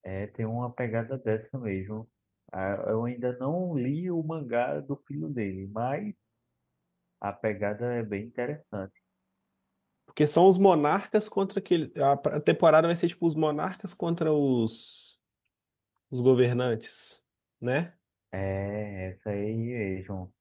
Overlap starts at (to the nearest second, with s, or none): none